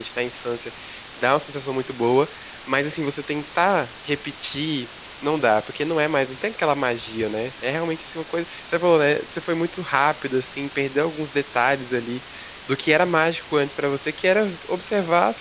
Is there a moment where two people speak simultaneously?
No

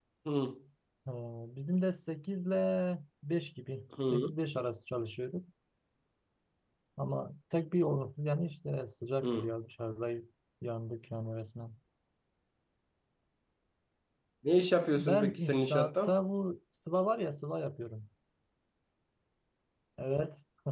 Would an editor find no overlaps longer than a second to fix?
No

